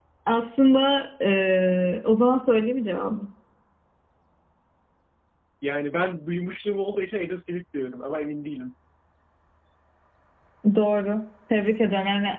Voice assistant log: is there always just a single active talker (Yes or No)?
Yes